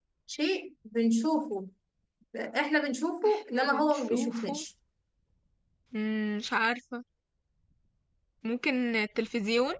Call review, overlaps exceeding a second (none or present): present